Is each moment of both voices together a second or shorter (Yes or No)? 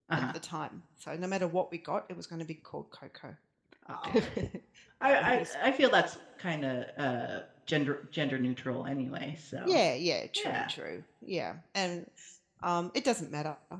Yes